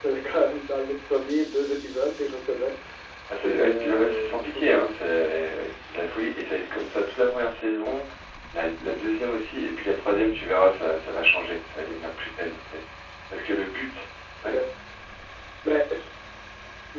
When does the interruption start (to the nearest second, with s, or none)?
3 s